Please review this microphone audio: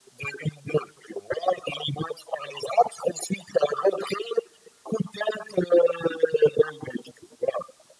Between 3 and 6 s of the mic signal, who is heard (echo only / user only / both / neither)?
echo only